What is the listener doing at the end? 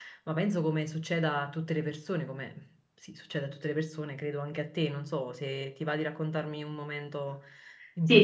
taking over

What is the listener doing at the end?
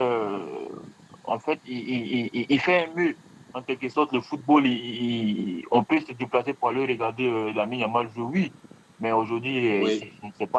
listening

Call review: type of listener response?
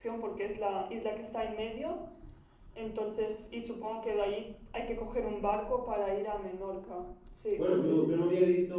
taking over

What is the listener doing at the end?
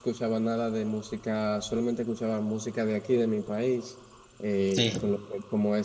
listening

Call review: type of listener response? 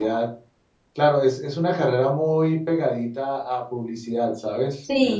taking over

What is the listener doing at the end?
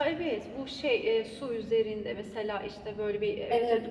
taking over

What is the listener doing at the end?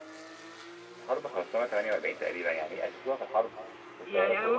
taking over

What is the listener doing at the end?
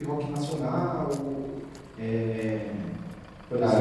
taking over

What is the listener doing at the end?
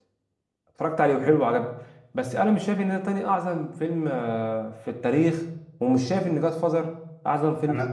taking over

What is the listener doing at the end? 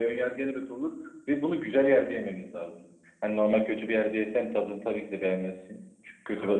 listening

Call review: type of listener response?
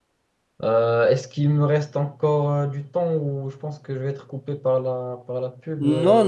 taking over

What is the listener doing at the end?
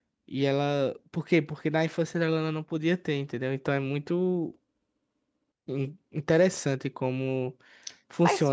taking over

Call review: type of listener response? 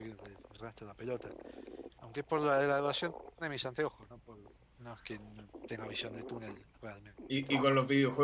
taking over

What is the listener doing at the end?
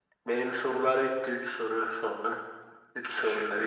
taking over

